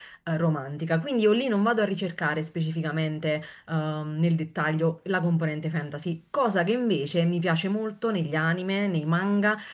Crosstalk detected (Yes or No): No